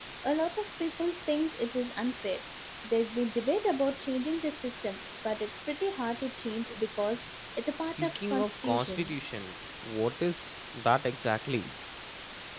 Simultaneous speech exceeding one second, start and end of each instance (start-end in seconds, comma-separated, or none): 7.8-9.2